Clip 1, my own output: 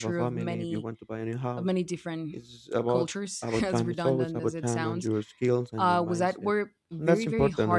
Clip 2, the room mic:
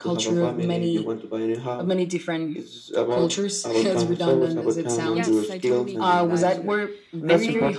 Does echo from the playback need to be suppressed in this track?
Yes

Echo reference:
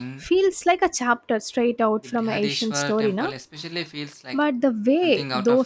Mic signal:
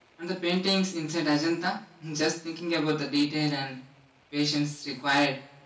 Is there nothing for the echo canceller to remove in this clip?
Yes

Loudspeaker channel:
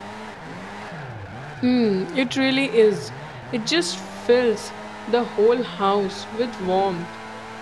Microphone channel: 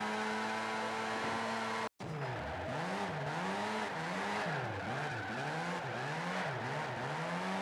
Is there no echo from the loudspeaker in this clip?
Yes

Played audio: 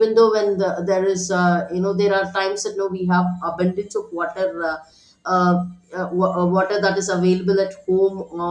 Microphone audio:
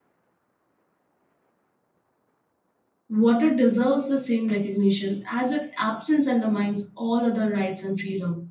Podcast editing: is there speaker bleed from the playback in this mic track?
No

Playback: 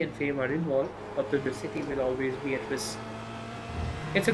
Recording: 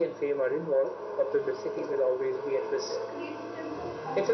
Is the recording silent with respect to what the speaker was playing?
No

